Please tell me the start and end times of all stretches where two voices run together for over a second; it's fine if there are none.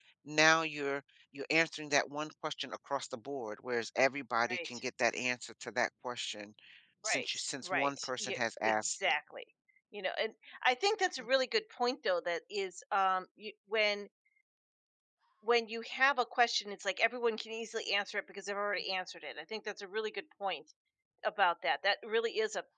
7.0-9.1

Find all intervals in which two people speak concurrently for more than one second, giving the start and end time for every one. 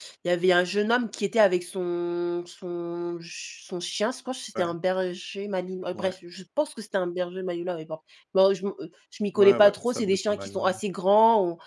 9.4-10.8

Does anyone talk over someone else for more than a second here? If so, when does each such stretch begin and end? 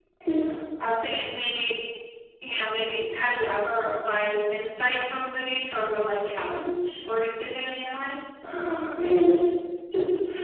none

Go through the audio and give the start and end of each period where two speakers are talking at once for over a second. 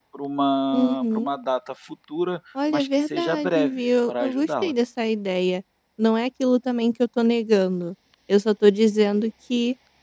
2.7-4.7

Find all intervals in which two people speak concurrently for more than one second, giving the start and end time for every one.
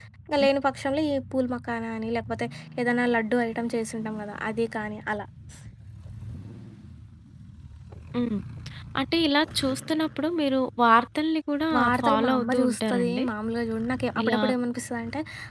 11.8-13.2

